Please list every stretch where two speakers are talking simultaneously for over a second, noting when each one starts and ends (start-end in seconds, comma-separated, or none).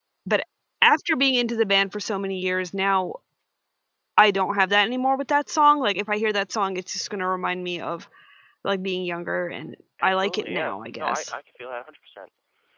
10.0-11.3